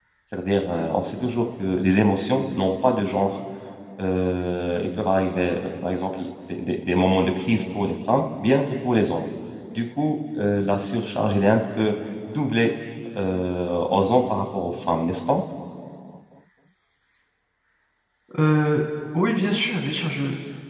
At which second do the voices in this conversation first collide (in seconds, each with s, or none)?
none